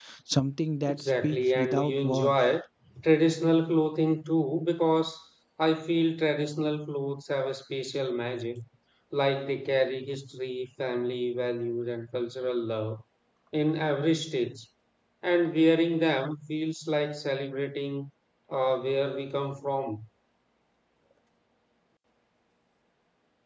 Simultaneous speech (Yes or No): Yes